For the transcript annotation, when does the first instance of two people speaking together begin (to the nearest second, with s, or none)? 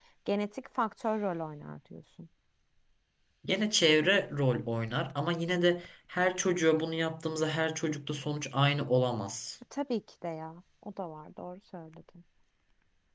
none